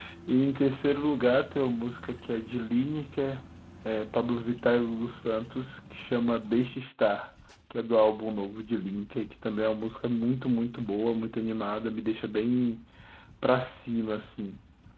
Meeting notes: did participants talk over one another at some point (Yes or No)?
No